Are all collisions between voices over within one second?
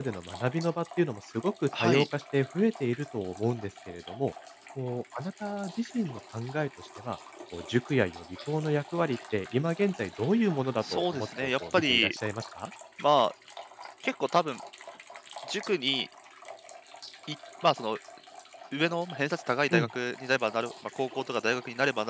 No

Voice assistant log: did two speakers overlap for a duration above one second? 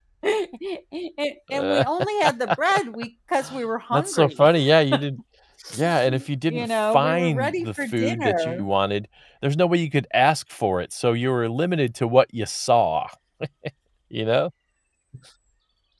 Yes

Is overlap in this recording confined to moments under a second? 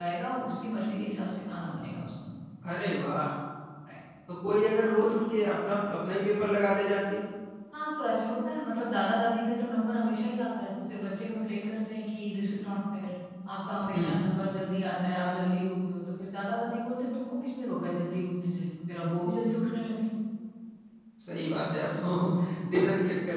Yes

